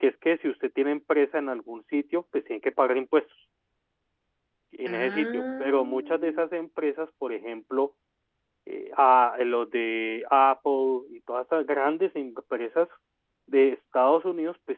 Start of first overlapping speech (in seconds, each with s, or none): 4.9 s